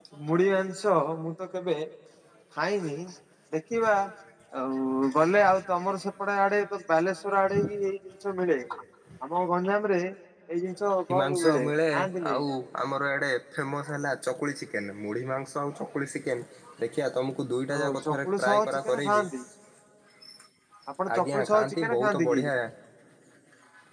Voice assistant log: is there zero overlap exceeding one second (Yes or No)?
No